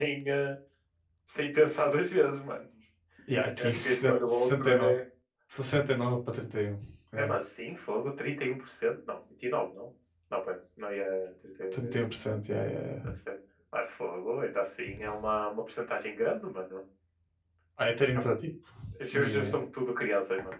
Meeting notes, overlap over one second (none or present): present